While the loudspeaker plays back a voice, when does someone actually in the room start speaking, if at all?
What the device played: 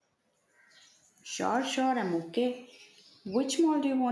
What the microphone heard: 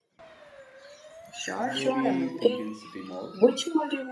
1.5 s

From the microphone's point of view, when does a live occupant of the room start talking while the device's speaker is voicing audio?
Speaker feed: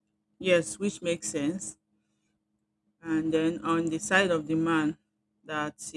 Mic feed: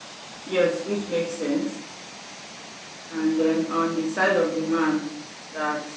none

